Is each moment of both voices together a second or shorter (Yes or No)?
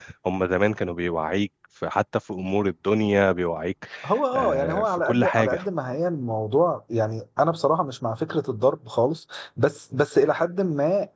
No